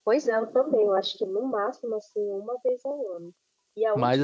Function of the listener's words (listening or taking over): listening